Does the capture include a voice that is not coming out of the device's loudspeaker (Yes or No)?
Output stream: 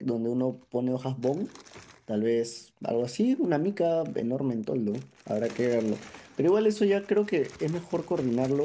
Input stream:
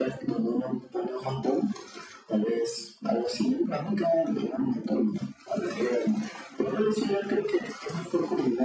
No